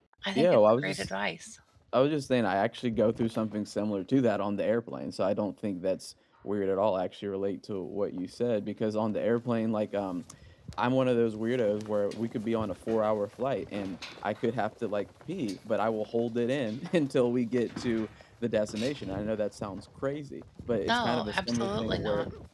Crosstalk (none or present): present